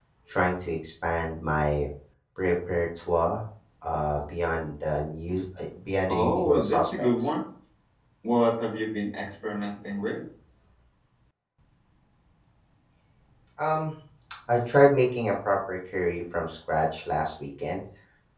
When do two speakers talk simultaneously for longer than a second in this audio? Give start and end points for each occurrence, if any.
6.1-7.3

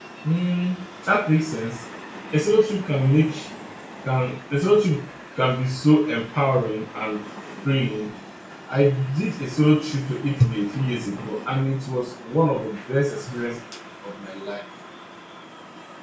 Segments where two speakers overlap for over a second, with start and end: none

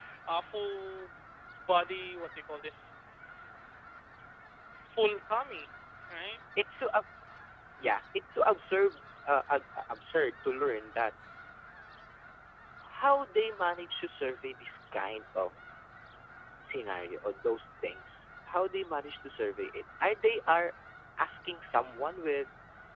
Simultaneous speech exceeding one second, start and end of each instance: none

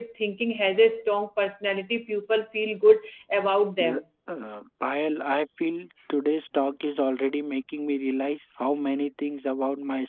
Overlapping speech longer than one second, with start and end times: none

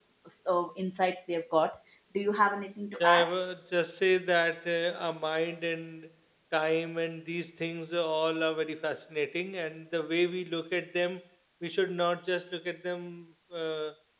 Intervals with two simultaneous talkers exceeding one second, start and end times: none

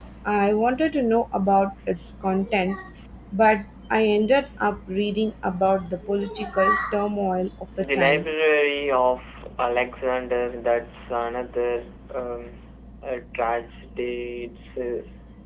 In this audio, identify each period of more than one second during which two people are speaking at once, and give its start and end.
none

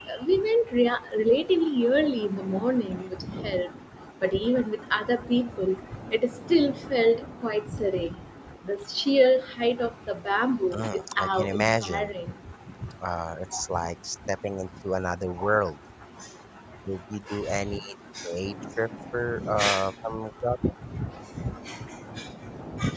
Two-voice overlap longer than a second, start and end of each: 10.7-12.1

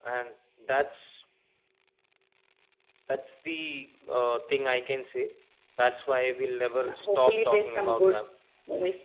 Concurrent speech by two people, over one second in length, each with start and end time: 6.9-8.2

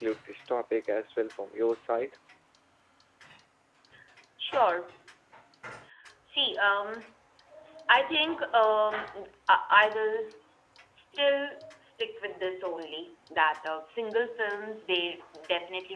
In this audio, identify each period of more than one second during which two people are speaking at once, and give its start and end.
none

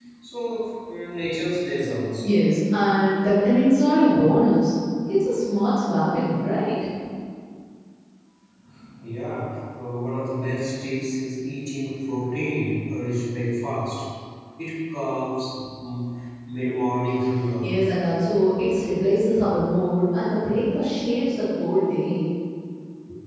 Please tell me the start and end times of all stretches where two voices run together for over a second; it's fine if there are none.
none

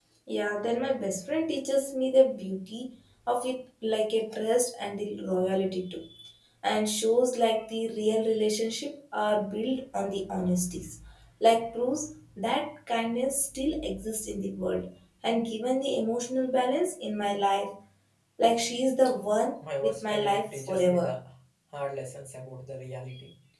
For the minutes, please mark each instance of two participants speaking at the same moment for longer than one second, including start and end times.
19.8-21.1

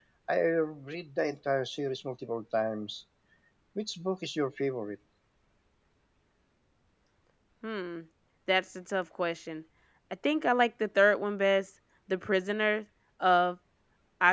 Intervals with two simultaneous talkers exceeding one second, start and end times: none

